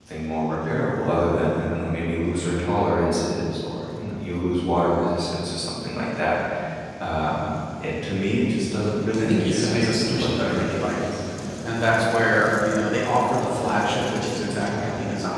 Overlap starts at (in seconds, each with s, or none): 9.1 s